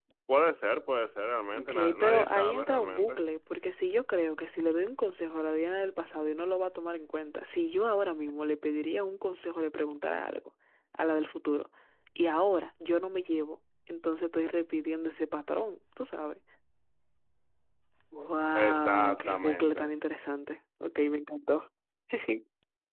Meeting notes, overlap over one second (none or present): present